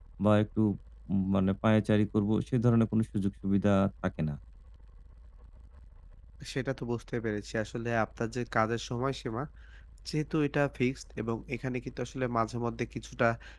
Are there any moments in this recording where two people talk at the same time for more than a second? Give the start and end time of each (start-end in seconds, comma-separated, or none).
none